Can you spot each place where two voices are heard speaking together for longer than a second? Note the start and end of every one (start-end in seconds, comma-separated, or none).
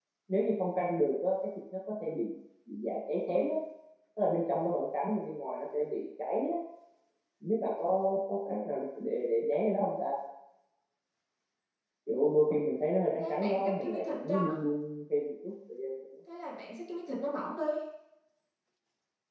13.2-14.6